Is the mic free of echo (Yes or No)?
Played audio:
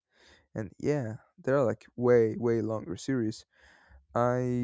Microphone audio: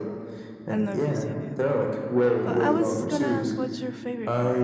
No